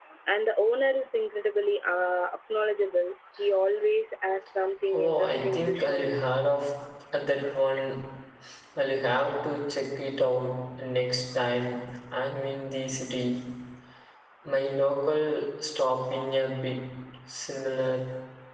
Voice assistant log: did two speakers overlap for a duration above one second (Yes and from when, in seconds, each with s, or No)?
Yes, from 4.9 s